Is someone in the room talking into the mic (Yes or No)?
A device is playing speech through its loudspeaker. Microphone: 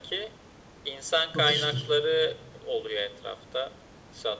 Yes